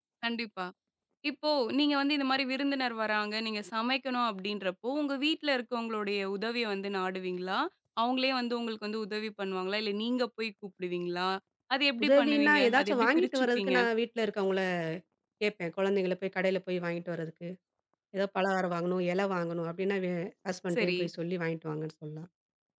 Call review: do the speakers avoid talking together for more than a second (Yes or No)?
No